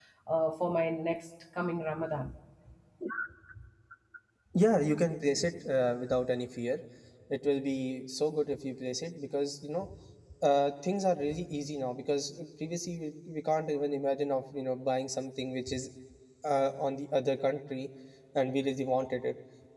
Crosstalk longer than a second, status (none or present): none